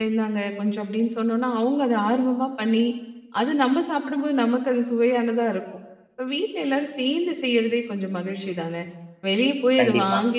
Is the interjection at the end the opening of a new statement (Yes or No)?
No